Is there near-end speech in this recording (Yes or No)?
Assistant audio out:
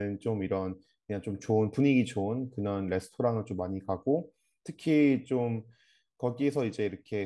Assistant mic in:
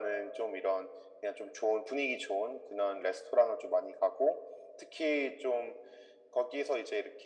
No